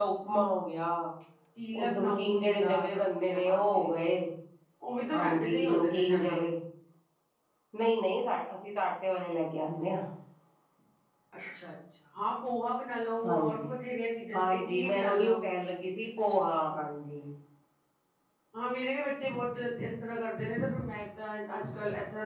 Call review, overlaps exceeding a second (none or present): present